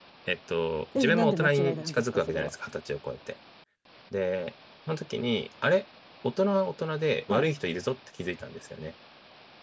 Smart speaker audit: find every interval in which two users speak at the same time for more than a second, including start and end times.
0.9-2.5

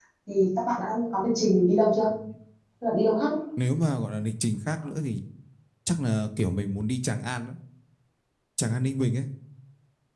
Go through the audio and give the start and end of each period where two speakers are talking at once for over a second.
none

